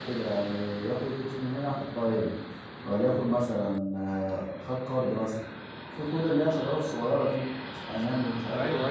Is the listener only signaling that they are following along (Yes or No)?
No